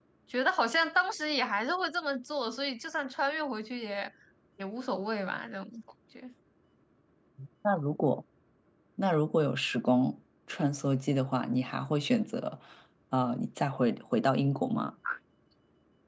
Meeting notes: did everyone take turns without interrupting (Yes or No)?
Yes